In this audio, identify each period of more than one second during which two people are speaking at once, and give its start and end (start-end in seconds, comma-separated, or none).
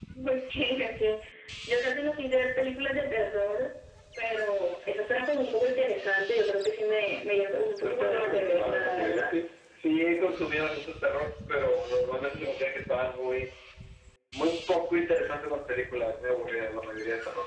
7.5-9.3